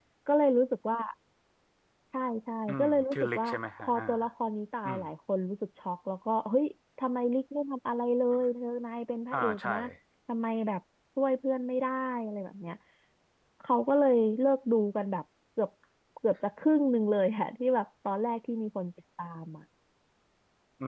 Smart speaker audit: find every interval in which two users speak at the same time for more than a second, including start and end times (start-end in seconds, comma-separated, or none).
2.7-4.0